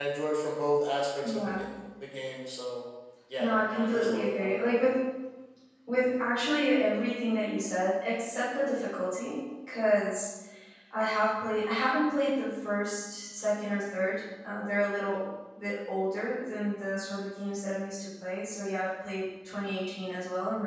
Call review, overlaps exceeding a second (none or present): present